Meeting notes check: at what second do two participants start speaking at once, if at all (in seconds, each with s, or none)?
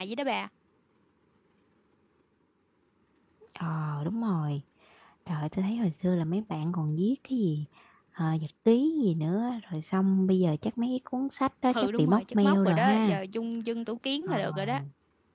11.8 s